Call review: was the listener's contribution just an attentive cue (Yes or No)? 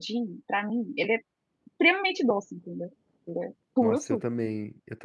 No